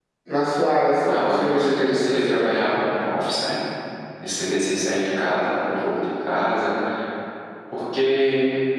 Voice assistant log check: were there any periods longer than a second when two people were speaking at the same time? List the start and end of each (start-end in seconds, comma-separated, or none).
1.1-2.5